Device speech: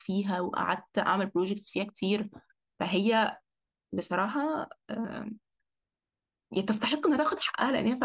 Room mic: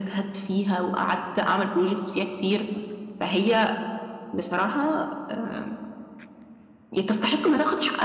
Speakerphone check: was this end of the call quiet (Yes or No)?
Yes